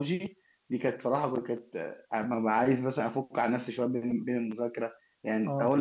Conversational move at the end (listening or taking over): listening